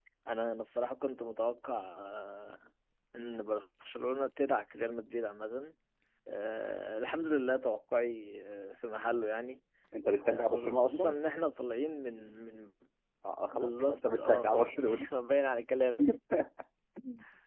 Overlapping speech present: Yes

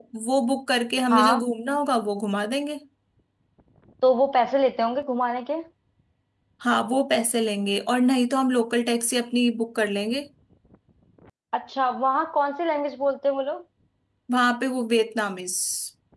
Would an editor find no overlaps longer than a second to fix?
Yes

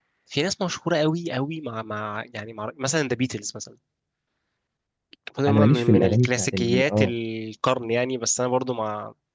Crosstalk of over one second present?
Yes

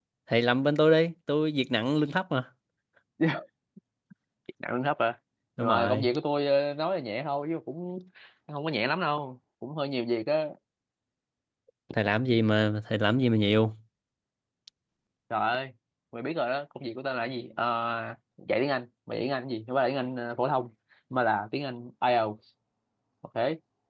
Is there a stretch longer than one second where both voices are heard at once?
No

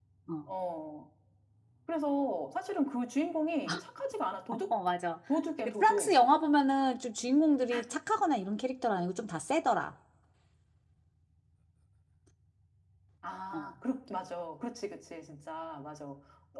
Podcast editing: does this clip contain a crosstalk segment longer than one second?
No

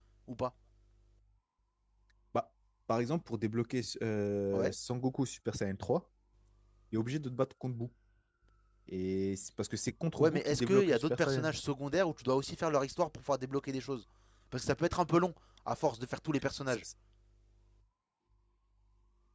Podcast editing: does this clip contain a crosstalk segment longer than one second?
Yes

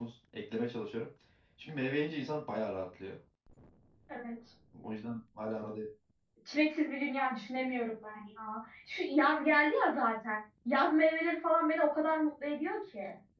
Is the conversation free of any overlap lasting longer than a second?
Yes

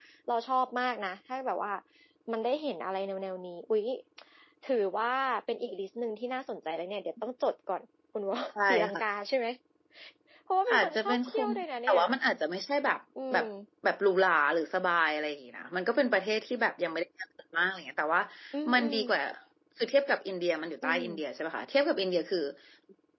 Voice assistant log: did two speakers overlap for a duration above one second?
Yes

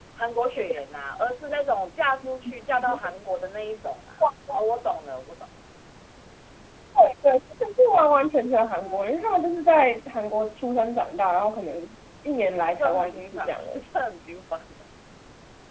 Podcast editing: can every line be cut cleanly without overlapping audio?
No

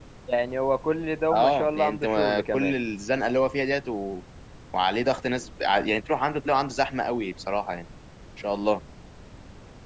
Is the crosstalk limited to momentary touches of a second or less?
No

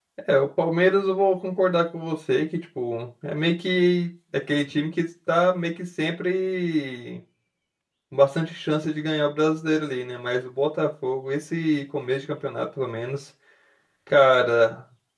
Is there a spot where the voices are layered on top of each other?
No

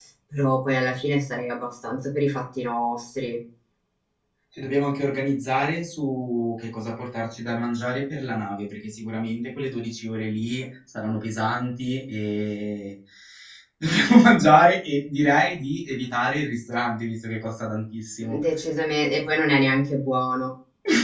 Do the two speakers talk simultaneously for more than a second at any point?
No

